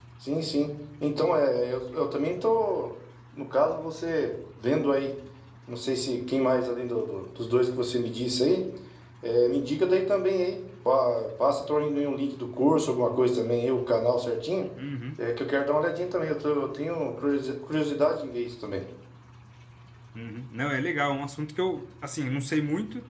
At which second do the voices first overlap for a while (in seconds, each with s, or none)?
none